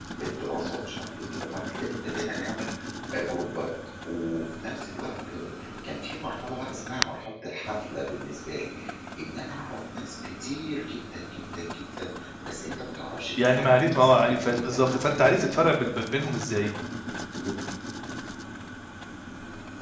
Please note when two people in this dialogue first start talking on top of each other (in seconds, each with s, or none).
13.4 s